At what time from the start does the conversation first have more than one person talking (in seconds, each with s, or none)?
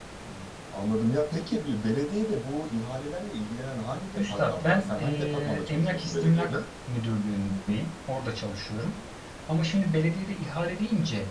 4.2 s